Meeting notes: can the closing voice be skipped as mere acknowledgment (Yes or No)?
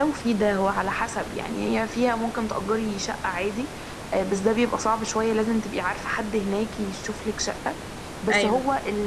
Yes